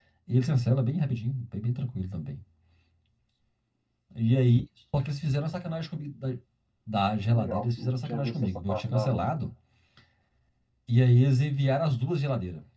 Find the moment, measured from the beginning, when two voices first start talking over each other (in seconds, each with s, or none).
7.3 s